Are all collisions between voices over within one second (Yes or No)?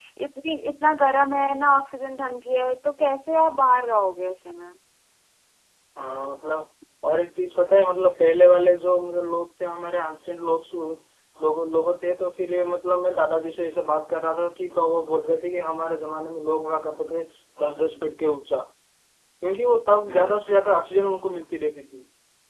Yes